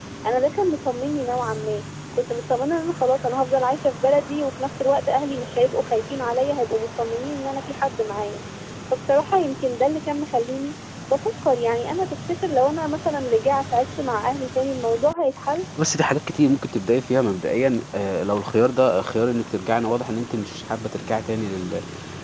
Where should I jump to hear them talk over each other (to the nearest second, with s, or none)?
none